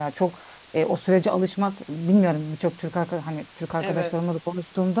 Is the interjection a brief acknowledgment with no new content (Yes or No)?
Yes